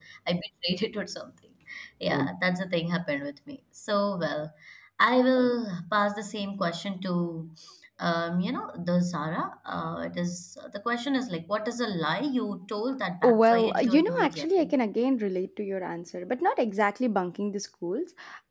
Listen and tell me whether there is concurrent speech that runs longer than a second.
Yes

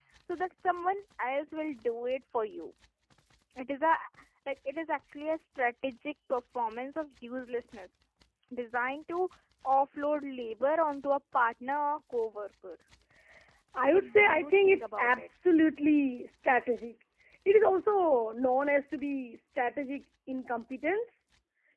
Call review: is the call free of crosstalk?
No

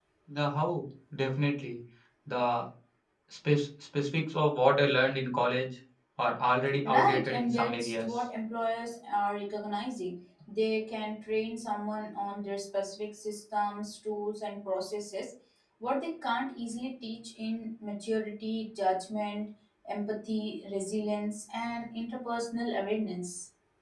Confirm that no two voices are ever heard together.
No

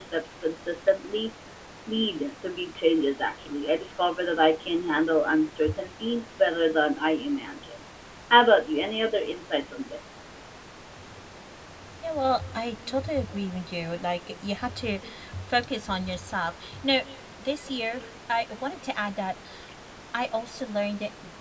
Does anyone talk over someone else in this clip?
No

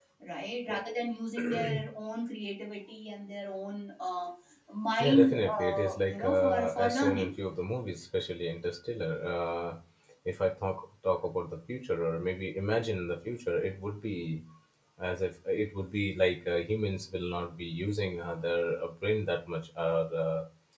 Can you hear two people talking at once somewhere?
Yes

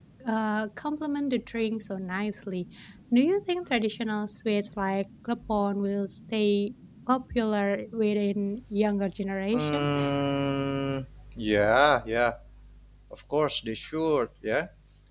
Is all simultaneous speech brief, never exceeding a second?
Yes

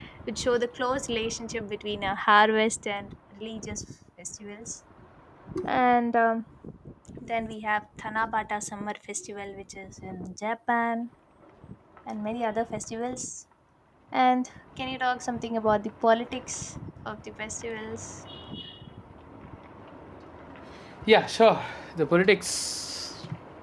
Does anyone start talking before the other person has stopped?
No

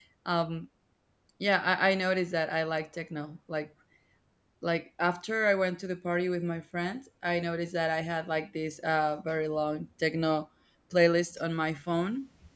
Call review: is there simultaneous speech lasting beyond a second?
No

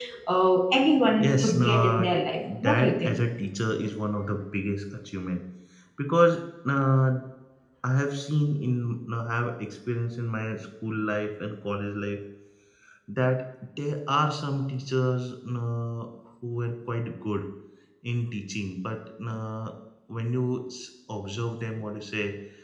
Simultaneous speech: Yes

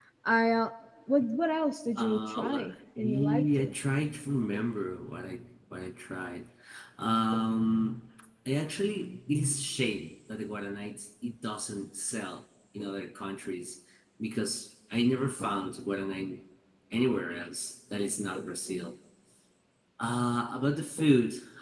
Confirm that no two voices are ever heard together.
No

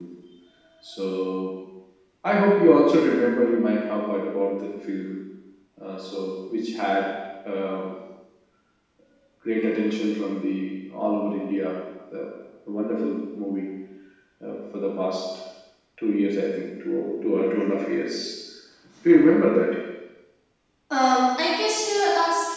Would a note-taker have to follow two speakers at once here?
No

